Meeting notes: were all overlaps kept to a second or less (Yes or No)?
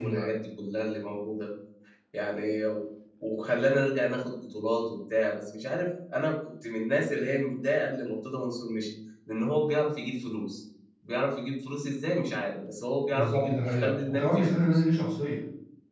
No